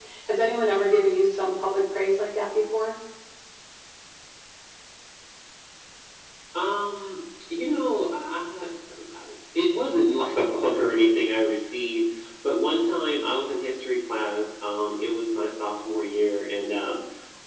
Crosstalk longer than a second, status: none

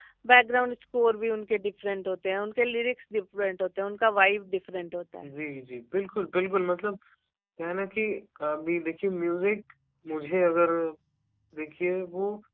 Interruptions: none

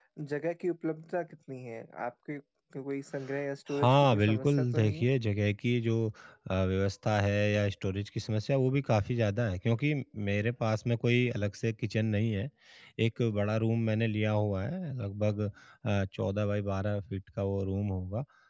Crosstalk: present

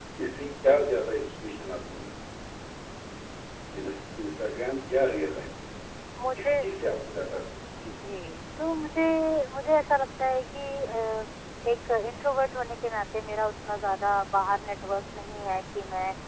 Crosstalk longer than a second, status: none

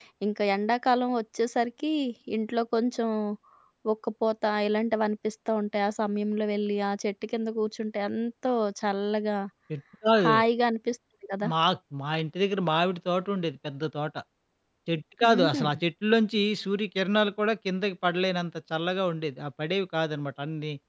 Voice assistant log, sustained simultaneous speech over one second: none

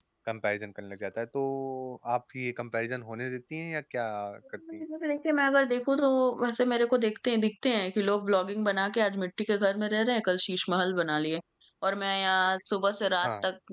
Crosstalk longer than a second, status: none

